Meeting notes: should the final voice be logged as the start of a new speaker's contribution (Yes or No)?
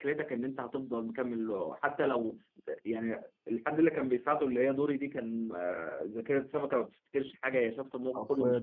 No